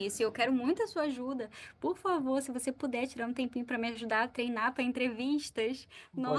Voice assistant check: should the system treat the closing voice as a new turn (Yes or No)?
Yes